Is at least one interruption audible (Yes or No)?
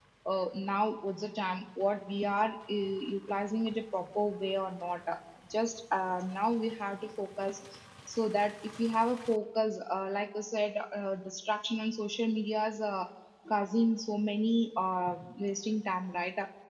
No